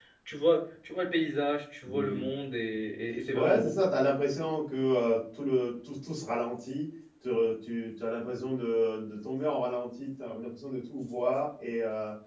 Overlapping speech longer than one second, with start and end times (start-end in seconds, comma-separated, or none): none